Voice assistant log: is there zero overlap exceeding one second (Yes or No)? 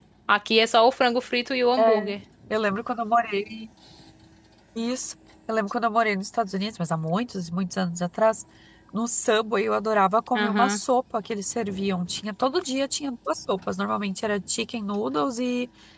Yes